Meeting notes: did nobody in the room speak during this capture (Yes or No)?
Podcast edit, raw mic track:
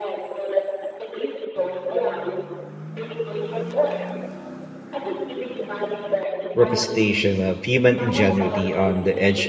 No